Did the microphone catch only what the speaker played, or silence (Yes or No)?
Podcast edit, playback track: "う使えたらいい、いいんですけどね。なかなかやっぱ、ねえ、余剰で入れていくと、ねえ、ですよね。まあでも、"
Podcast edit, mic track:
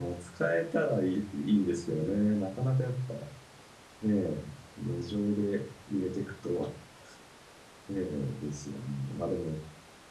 Yes